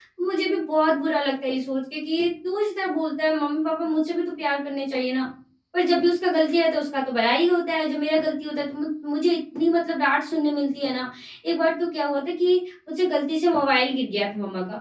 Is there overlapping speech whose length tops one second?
No

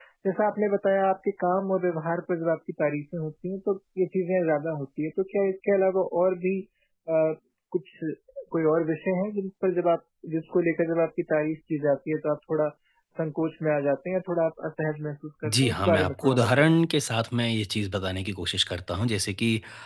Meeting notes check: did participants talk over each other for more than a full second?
Yes, from 15.4 s

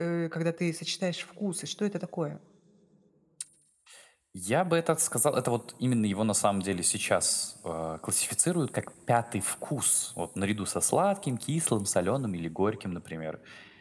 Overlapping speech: No

